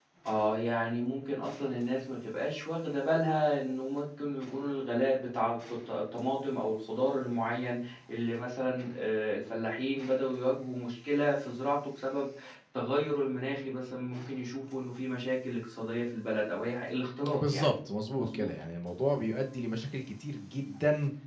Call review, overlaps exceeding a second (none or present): none